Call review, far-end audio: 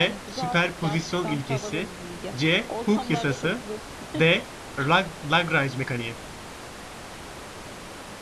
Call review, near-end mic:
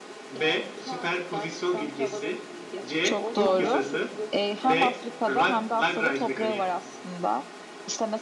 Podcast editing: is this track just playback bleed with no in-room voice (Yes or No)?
No